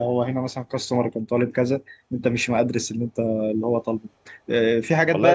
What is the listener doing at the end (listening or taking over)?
taking over